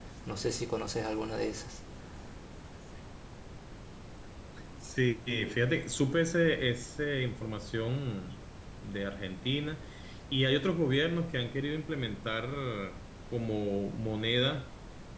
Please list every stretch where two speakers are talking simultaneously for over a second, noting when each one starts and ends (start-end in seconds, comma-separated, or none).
none